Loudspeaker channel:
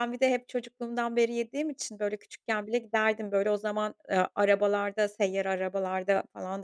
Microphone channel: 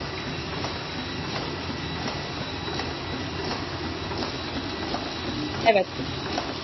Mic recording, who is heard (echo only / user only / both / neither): user only